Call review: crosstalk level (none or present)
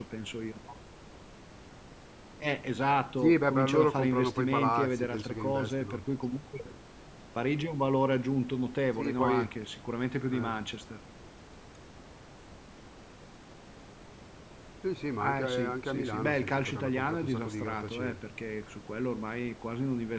present